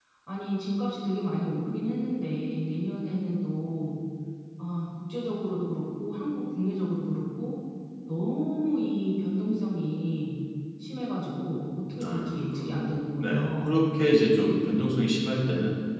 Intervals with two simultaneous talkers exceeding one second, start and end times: 12.0-13.7

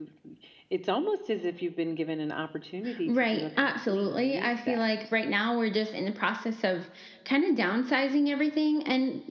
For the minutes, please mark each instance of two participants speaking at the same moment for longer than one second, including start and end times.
3.1-4.8

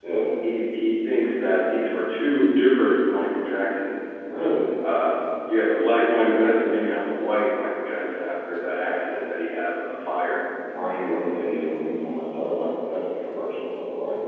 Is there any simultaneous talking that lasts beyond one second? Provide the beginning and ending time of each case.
none

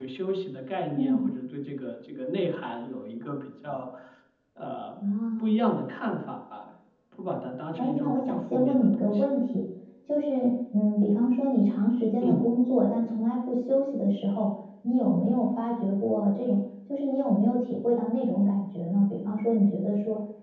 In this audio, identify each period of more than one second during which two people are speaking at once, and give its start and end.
7.8-9.2

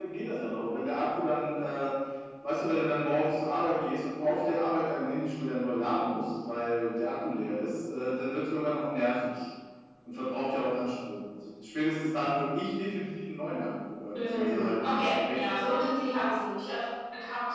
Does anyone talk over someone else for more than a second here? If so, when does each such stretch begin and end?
14.2-15.8

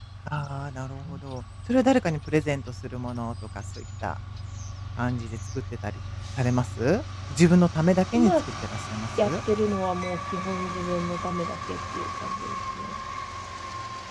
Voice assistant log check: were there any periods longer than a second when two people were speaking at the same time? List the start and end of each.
none

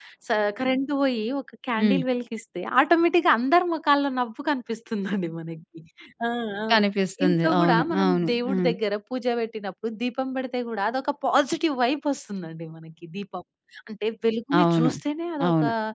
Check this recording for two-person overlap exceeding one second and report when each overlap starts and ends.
7.2-8.7

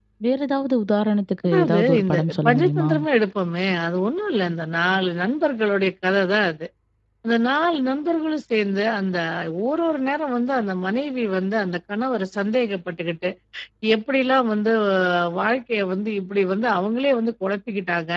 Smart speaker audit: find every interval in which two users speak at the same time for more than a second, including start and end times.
1.5-2.9

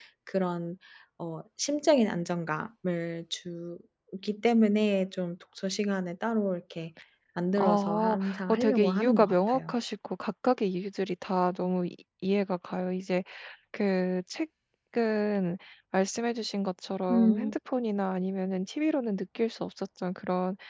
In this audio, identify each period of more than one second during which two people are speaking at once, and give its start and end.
7.6-9.8

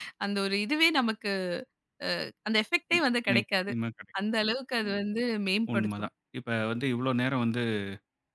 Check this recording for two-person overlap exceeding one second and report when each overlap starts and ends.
none

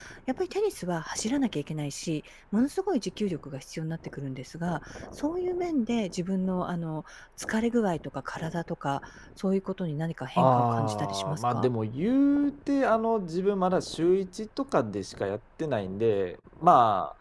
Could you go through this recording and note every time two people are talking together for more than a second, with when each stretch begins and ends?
10.4-11.7

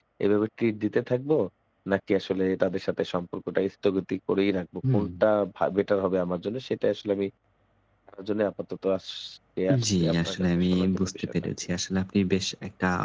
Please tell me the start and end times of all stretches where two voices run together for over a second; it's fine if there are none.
9.9-11.3

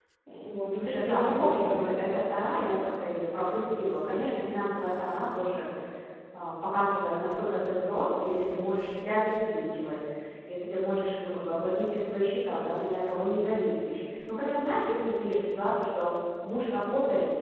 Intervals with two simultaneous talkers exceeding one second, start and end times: 0.7-2.1

